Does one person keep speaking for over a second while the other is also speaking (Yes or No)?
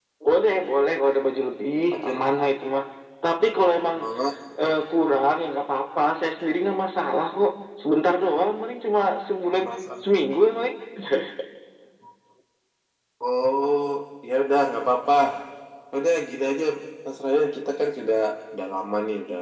No